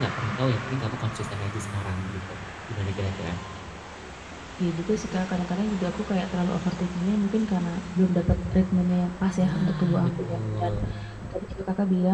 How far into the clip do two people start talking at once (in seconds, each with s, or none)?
9.4 s